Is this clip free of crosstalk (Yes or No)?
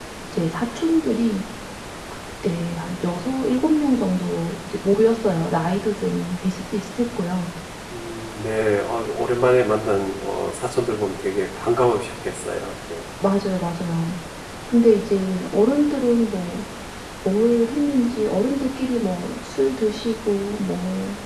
Yes